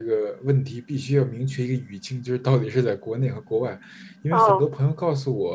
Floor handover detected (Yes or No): No